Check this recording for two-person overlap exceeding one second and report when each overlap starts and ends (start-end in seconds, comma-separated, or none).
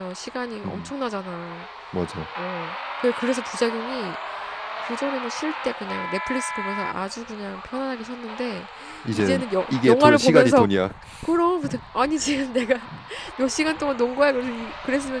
9.1-10.7